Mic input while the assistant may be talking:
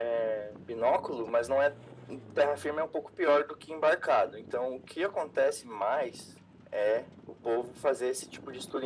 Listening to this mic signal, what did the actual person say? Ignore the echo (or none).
none